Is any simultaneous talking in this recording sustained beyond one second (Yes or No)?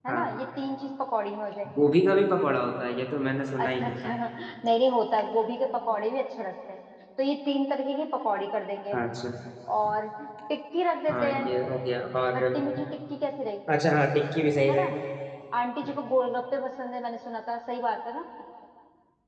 No